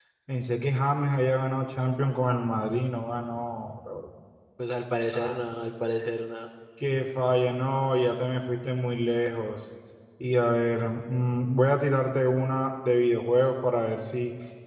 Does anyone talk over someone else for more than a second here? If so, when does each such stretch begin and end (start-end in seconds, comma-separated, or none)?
none